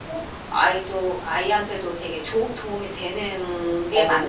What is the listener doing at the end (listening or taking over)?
taking over